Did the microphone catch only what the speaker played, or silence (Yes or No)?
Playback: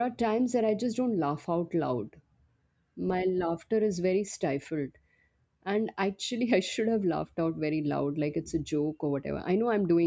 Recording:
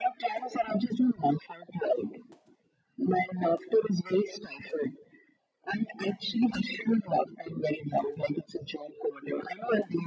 Yes